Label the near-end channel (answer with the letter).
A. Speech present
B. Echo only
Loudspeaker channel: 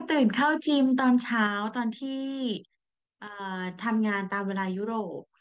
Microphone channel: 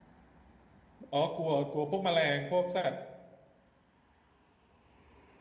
A